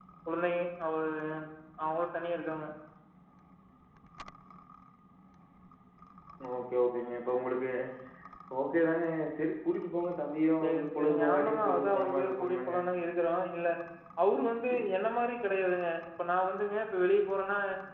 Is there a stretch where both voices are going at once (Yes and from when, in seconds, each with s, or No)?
Yes, from 10.6 s